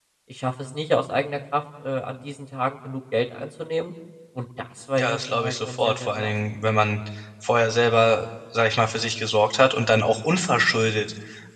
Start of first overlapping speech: 5.0 s

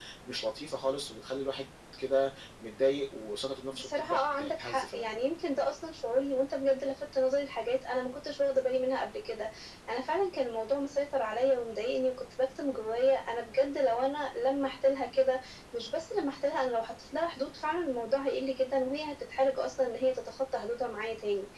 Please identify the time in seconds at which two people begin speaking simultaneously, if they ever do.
3.7 s

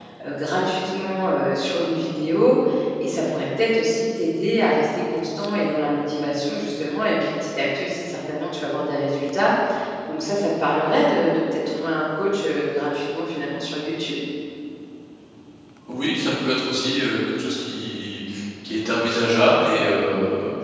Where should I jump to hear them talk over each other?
none

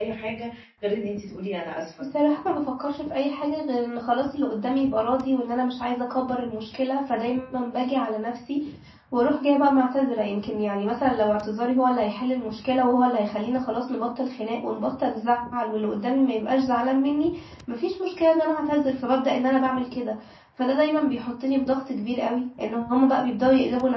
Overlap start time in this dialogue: none

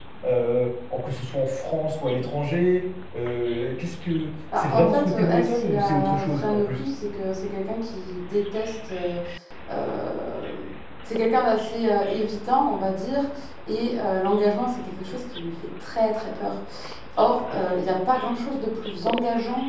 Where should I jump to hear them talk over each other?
4.5 s

